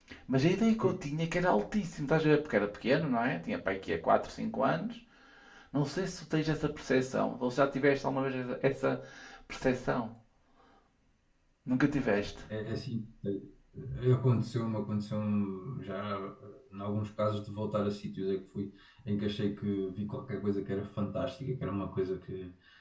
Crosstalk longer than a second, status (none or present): none